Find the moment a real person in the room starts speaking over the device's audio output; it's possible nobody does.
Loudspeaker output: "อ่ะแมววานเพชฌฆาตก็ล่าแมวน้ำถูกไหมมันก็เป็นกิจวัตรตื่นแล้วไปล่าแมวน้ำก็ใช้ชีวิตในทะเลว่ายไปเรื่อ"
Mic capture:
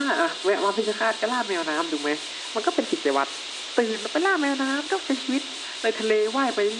none

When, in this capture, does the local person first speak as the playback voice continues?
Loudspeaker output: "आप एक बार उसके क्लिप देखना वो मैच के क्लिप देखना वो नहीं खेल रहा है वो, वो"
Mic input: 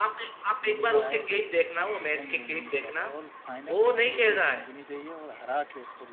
0.6 s

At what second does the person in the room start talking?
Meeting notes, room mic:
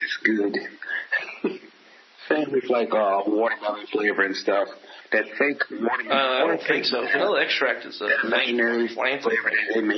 6.1 s

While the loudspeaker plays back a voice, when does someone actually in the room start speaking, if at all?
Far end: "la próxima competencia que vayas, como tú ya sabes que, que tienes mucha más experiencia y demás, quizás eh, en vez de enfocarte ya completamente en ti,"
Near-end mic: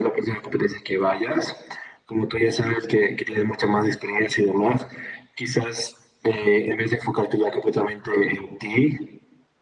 none

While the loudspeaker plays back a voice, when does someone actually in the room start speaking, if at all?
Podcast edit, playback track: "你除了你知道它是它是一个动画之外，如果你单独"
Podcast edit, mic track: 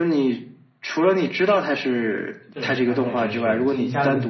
2.5 s

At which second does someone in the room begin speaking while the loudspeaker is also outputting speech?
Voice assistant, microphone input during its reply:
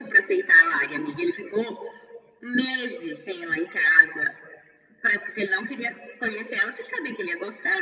none

